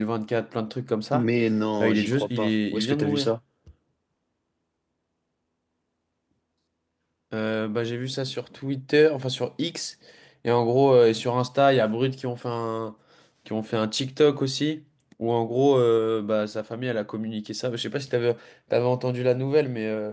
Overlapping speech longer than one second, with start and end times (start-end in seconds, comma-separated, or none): 1.8-3.3